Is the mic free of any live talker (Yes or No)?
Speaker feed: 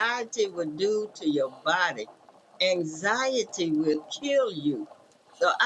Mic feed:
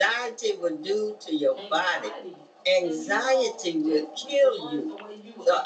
No